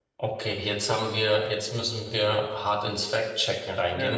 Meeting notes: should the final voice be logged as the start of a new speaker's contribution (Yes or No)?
Yes